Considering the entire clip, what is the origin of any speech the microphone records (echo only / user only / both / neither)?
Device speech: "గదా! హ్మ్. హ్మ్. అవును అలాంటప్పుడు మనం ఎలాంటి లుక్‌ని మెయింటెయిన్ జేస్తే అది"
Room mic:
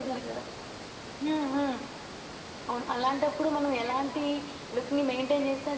echo only